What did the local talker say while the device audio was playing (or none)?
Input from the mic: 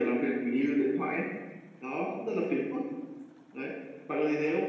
none